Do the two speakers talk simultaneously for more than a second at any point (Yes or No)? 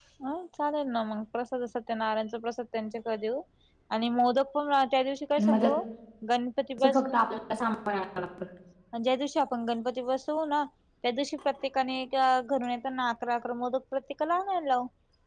No